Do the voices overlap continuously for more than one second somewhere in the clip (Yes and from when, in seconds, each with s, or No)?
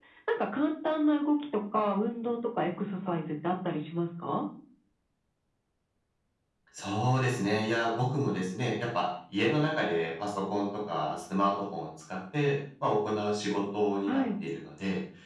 No